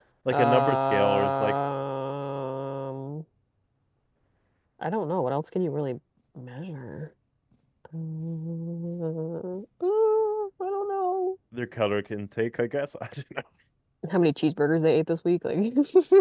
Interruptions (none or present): present